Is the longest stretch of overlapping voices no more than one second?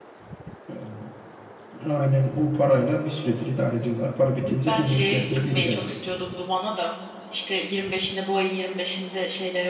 No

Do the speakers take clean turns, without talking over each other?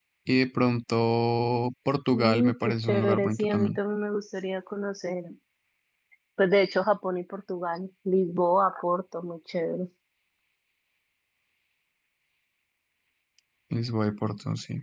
No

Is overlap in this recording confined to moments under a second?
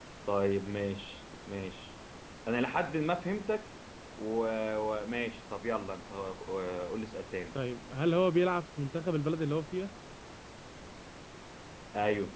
Yes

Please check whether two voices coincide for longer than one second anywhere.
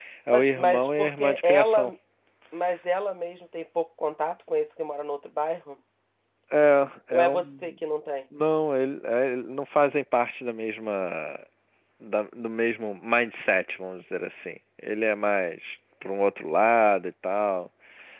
Yes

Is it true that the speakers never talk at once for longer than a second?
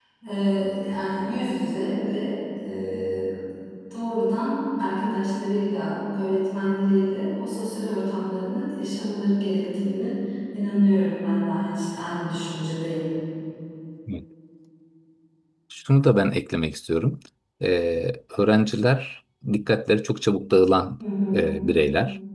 Yes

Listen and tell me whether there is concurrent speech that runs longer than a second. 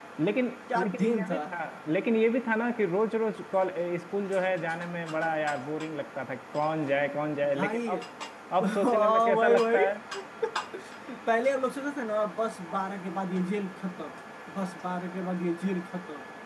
Yes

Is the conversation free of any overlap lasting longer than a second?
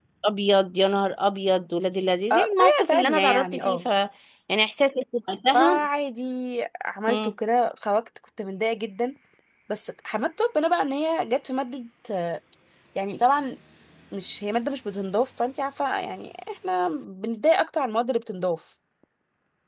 No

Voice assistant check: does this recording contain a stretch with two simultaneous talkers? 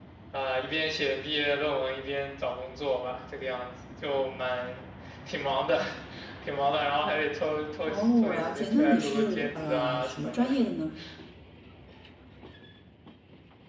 Yes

